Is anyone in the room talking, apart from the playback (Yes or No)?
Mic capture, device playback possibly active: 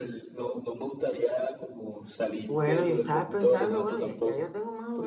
Yes